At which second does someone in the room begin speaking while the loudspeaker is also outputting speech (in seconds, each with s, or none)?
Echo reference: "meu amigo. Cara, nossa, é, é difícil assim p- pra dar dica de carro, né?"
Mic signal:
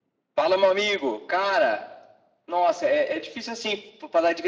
none